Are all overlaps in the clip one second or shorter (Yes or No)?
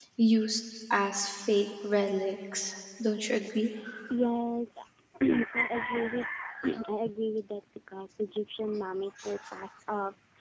Yes